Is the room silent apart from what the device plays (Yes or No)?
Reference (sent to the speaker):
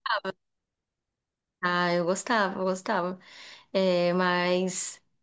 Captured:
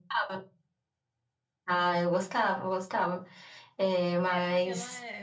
No